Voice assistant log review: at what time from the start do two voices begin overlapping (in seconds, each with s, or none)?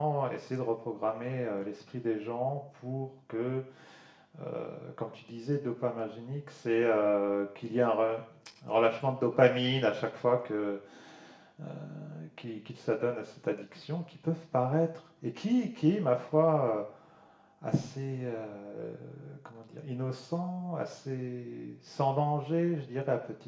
none